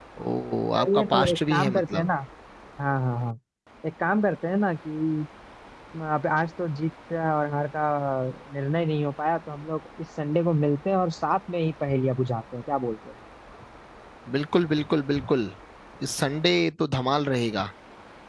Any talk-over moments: Yes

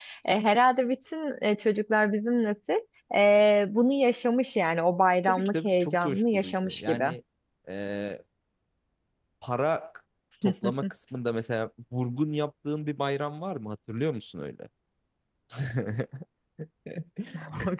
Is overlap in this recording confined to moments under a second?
No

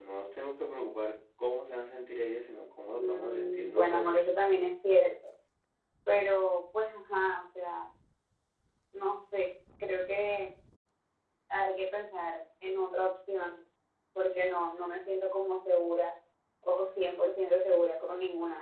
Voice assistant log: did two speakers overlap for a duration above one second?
Yes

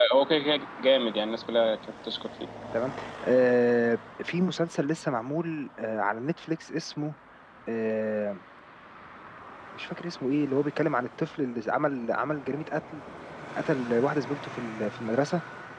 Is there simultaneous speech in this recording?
No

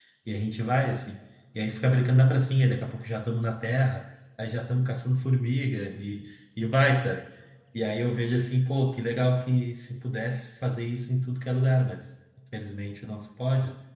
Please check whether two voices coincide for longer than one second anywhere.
No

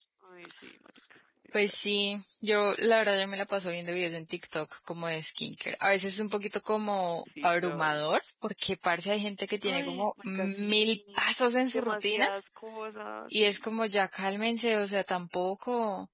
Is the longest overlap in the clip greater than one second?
Yes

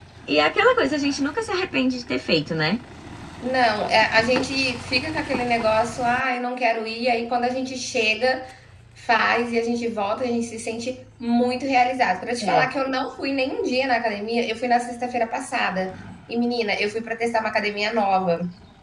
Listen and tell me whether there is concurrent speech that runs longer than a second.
No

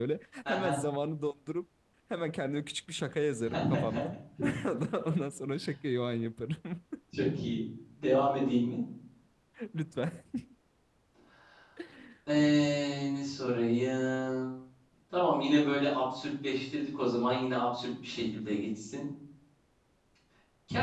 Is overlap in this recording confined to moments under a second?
Yes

